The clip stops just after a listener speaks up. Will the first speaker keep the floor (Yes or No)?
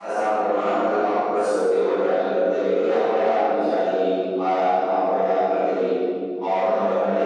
Yes